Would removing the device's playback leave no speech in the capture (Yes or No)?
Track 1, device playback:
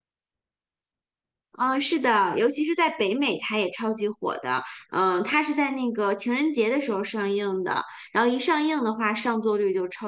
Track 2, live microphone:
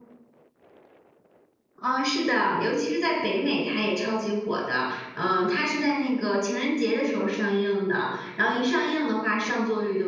Yes